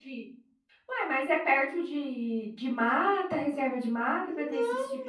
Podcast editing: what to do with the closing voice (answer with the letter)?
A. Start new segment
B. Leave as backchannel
A